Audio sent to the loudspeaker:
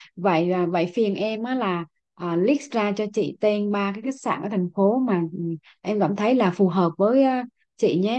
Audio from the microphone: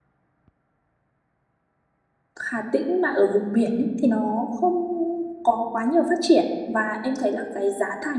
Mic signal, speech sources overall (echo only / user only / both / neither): user only